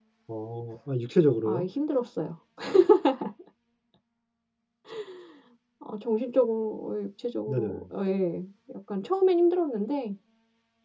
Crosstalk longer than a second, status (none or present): none